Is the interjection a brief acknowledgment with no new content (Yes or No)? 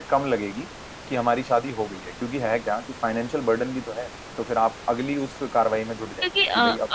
No